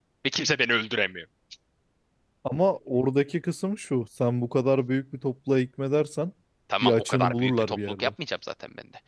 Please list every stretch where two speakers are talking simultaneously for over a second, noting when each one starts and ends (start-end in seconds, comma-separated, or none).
6.8-8.1